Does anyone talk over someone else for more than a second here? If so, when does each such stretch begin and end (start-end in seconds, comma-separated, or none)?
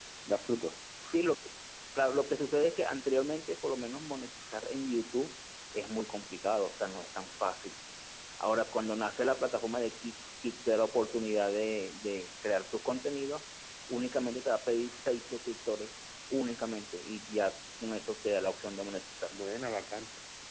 none